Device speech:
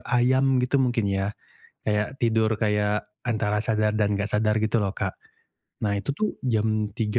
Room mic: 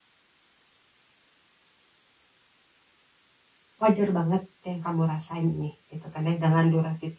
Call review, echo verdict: none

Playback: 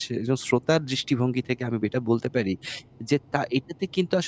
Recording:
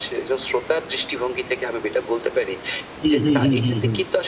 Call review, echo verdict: present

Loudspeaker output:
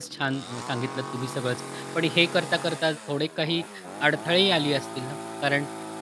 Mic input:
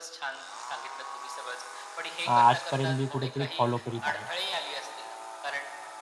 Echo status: present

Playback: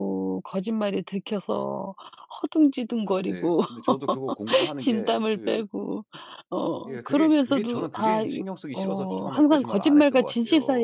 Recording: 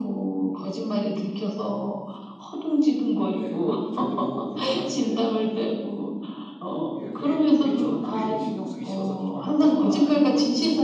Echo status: present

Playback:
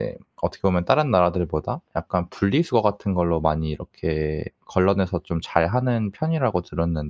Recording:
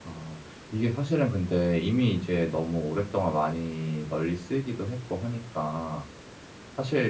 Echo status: none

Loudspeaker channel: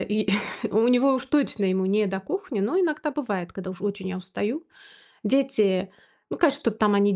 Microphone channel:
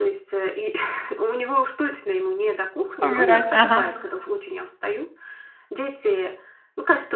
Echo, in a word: present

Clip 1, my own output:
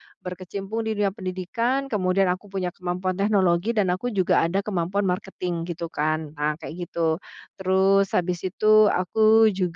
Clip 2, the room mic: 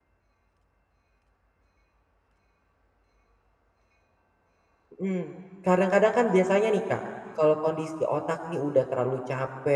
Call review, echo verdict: none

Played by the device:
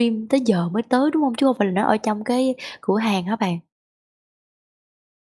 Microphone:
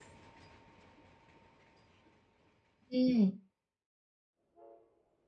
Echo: none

